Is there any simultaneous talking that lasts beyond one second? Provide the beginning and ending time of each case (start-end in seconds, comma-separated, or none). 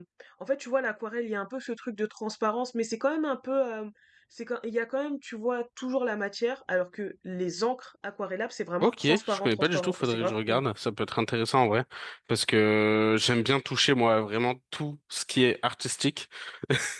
8.8-10.6